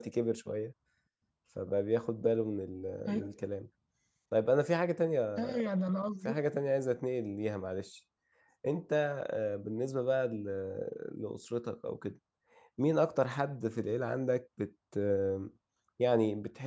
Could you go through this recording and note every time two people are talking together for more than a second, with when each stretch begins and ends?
none

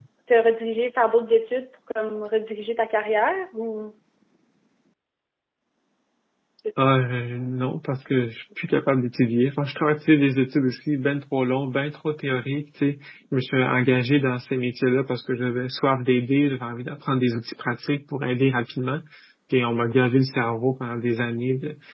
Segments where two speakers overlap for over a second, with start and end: none

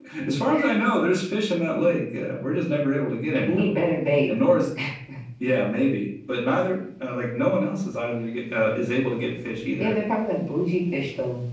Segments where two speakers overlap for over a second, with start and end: none

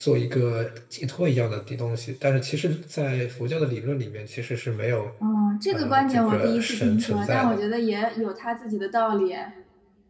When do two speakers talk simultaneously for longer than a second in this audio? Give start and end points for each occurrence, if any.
5.7-7.6

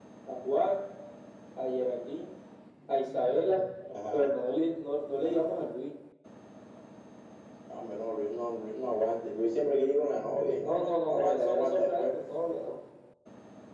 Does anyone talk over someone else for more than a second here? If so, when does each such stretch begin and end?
10.6-12.1

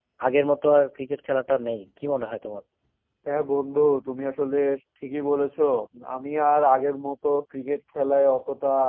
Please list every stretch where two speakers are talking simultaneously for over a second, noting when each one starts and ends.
none

